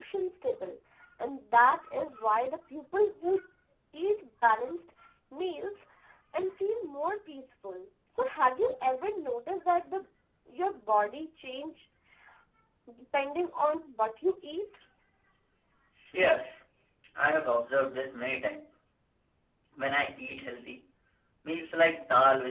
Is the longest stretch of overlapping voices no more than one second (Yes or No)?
Yes